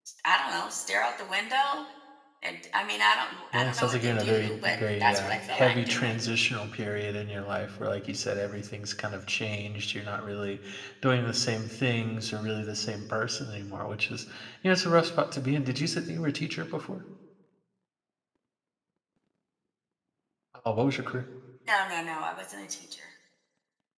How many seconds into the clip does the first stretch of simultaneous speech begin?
3.5 s

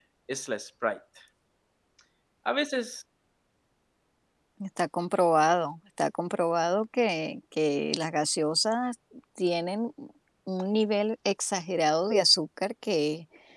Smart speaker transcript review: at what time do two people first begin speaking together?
none

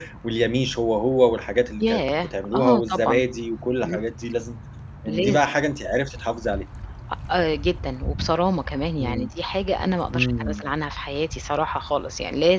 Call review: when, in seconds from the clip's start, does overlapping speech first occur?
1.8 s

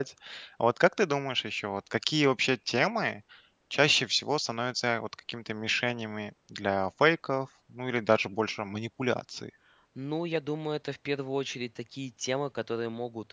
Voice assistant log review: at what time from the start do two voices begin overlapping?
none

